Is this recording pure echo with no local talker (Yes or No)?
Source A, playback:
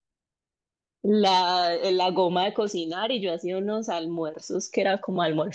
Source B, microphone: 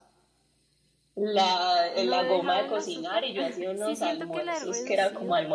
No